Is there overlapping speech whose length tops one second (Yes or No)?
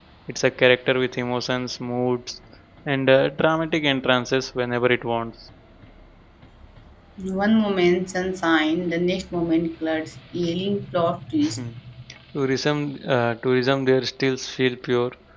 No